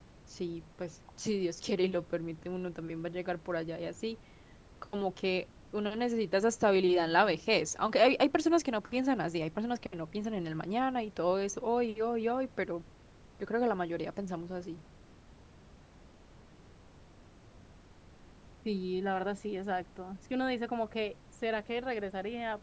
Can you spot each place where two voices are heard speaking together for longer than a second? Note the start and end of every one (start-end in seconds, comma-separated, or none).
none